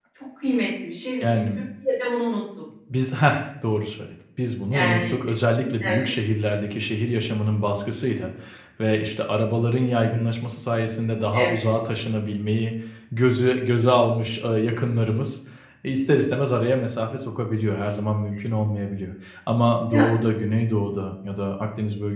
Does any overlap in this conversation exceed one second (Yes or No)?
No